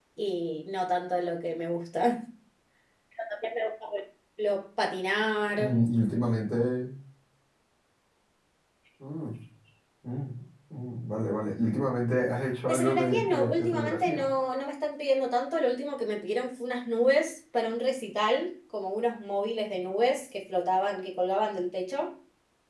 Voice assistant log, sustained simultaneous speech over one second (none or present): present